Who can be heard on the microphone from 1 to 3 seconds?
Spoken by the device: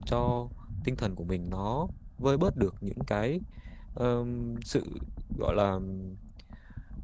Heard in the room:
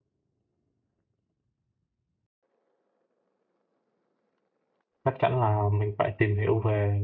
neither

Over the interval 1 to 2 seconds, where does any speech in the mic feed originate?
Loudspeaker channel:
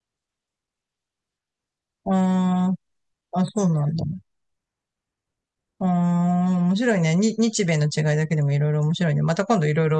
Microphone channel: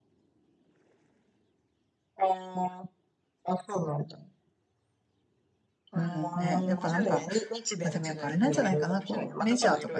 neither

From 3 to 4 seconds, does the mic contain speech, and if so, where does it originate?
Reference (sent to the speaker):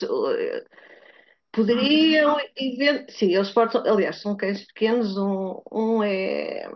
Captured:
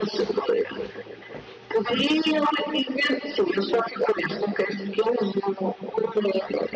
echo only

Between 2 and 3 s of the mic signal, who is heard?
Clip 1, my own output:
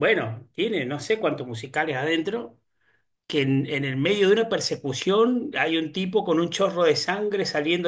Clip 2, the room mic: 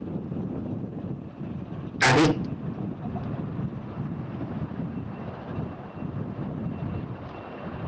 user only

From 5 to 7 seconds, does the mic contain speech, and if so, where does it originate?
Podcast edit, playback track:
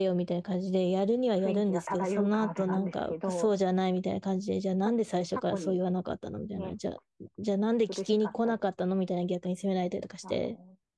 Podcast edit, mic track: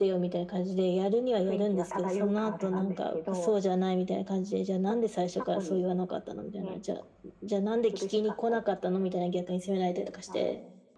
echo only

